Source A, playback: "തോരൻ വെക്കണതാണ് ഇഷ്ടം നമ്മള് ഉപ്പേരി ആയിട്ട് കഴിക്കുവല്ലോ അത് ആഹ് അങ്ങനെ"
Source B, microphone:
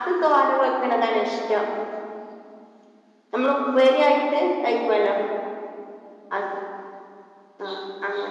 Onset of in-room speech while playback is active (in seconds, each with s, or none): none